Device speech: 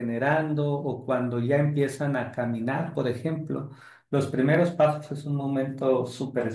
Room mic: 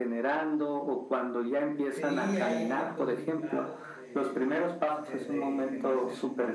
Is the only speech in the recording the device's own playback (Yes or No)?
No